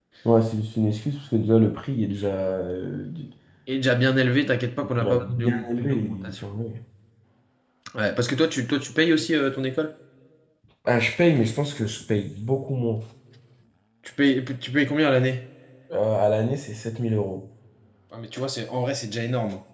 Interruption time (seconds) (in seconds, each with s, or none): 5.0 s